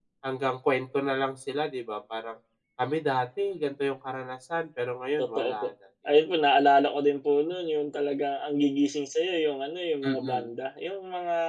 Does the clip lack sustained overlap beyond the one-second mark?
Yes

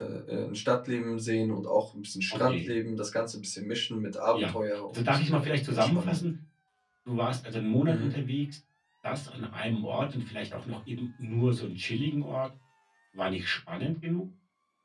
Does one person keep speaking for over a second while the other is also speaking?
Yes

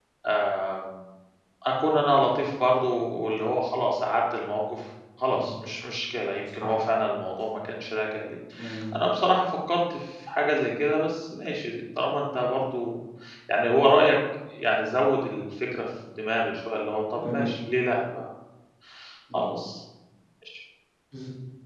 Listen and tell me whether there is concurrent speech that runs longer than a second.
No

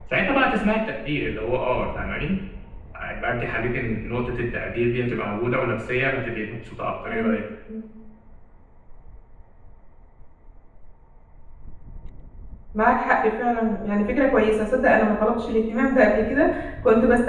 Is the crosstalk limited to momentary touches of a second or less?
Yes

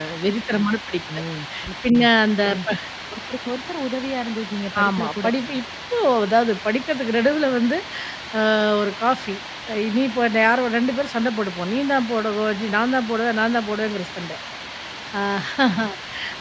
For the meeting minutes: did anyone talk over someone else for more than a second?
No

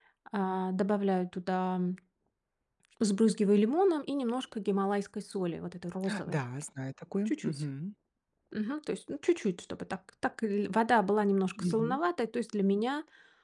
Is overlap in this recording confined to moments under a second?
Yes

